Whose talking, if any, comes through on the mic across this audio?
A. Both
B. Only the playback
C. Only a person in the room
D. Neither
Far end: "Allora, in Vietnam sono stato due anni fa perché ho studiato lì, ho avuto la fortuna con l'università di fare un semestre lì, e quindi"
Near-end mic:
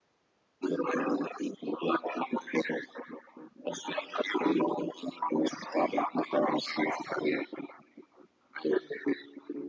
B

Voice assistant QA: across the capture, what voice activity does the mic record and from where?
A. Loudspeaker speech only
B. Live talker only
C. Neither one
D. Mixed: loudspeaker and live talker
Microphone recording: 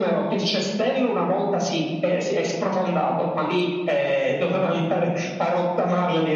A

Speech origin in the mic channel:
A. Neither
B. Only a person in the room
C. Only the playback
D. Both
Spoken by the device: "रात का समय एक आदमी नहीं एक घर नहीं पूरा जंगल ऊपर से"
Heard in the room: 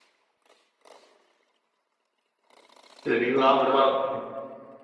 B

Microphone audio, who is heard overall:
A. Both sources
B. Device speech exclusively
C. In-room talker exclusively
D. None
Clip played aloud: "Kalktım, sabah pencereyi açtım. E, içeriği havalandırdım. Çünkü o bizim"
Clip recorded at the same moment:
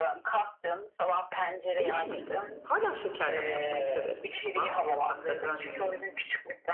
A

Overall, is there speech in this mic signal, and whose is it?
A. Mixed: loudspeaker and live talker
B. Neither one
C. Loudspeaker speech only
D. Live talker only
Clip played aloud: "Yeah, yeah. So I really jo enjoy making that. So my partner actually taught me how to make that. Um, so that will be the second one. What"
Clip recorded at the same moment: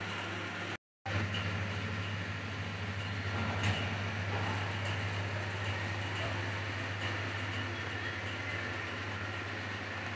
B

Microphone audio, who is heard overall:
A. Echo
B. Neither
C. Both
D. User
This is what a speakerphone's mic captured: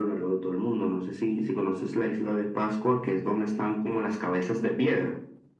A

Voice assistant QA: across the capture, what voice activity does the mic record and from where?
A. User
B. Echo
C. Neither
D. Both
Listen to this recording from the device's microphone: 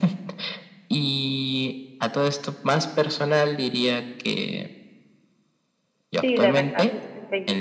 D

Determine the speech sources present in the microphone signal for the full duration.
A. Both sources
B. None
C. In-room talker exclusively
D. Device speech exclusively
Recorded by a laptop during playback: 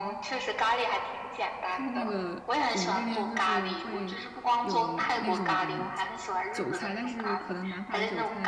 A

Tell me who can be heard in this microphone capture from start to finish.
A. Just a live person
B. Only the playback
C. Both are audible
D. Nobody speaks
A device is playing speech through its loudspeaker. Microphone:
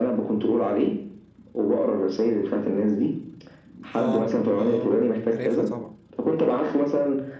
C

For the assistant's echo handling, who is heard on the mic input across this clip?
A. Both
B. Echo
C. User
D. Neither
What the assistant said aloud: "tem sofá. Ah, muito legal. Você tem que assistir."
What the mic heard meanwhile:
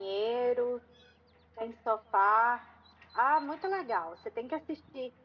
B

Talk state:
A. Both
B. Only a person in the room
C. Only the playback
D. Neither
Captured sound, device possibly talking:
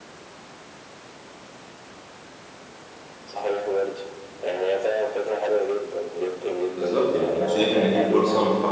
A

